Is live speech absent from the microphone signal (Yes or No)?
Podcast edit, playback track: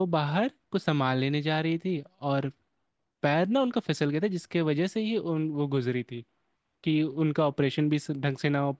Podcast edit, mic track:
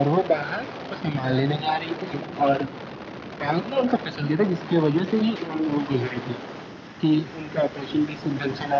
Yes